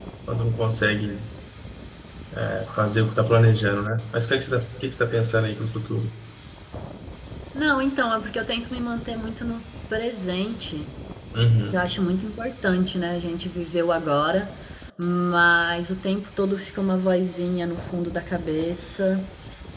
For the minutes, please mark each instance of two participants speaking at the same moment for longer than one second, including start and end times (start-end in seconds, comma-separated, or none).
none